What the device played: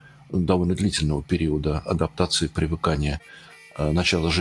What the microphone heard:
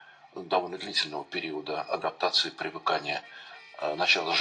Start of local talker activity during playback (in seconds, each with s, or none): none